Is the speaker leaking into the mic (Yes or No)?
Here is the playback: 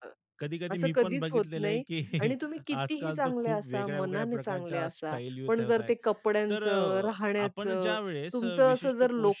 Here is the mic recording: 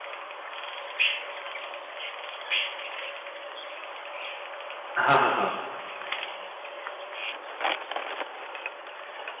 No